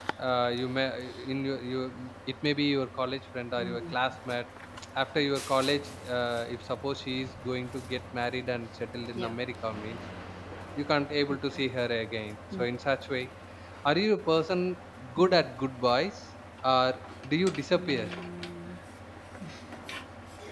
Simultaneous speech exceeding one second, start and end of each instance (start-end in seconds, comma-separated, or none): none